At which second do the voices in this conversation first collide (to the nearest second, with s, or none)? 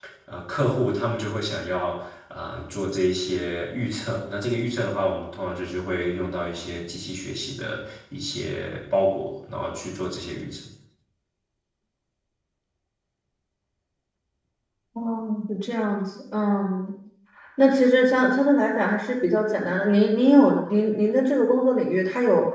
none